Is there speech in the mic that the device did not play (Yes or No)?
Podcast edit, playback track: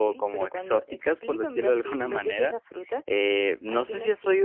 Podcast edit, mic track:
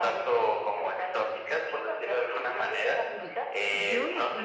Yes